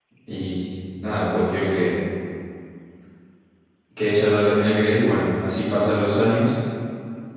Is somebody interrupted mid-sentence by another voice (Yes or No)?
No